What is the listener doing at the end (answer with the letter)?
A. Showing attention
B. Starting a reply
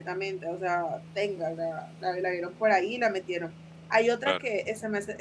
A